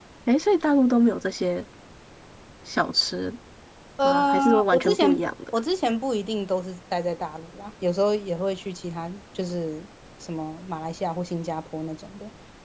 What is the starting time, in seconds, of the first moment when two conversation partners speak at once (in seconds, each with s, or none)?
4.0 s